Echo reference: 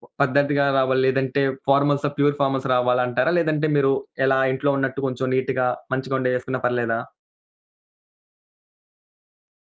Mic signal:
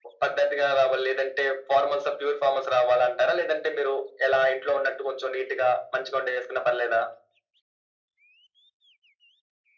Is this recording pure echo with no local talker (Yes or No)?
Yes